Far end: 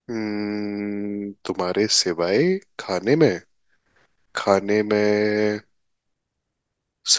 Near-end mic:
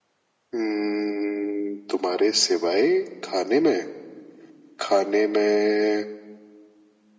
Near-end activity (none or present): none